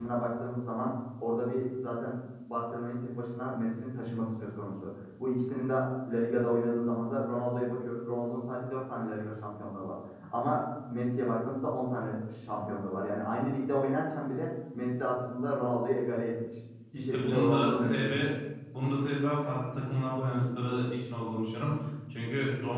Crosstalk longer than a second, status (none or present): present